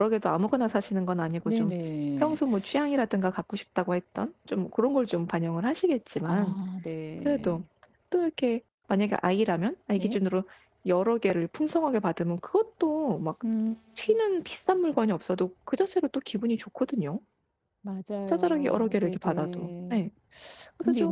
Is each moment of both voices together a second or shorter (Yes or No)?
No